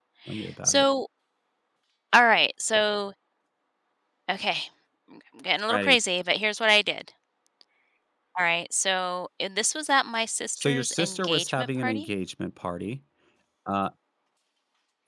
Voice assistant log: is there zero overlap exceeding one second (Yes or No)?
No